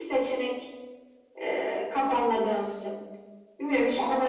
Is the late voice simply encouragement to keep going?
Yes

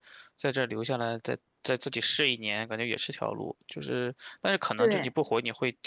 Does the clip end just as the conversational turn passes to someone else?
No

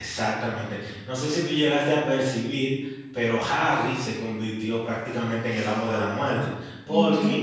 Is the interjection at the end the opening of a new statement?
No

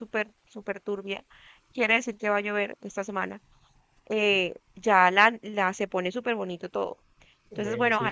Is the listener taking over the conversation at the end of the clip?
No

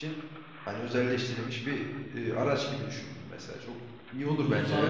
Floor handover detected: Yes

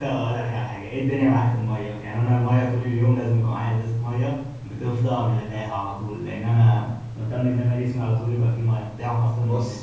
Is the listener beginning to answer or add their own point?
No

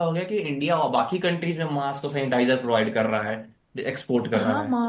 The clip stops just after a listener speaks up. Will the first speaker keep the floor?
No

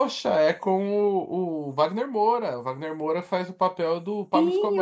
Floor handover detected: Yes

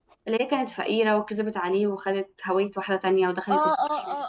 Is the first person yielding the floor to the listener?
Yes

